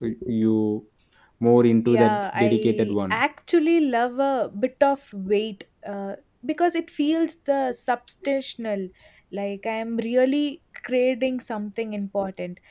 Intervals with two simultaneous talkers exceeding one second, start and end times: 1.9-3.2

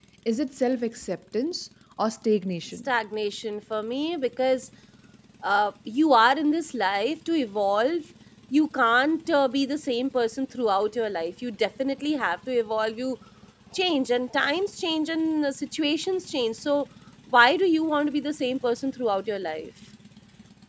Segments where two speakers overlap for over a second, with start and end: none

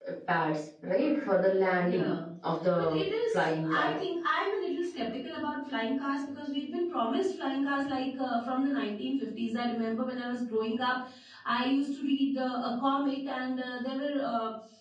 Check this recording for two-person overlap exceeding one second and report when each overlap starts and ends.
2.7-4.0

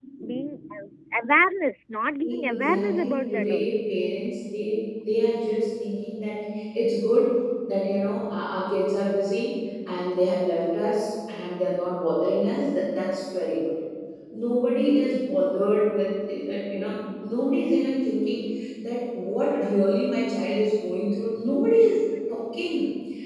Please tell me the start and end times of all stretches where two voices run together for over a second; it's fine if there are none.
2.3-3.8

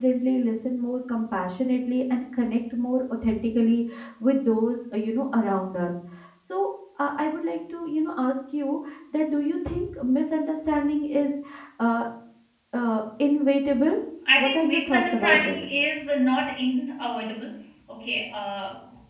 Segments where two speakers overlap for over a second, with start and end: 14.4-15.6

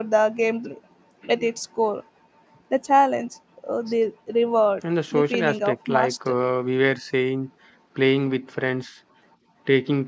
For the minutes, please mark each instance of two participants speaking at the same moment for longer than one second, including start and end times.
5.1-6.3

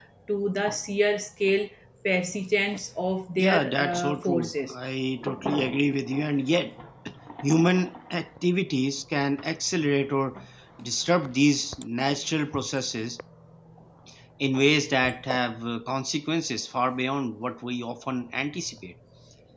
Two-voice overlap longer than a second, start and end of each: 3.4-4.7

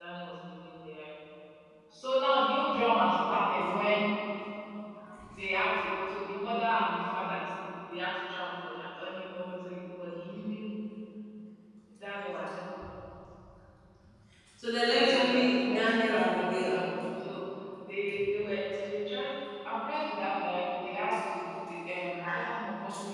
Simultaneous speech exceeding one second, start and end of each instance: 14.9-16.7

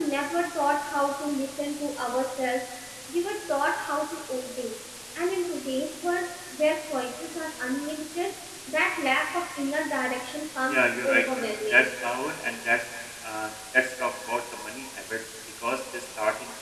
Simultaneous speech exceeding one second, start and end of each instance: 10.7-11.9

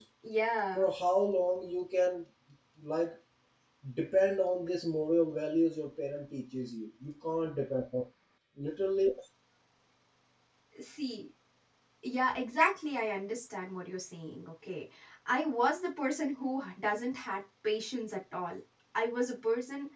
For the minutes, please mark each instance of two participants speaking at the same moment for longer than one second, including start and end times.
none

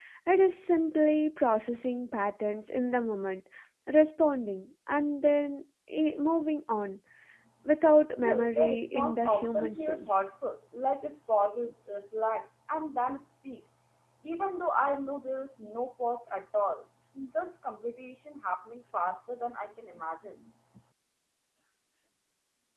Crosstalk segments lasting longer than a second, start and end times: 8.0-10.2

